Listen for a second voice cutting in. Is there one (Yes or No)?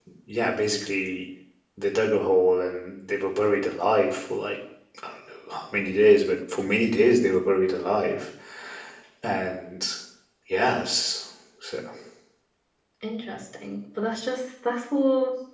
No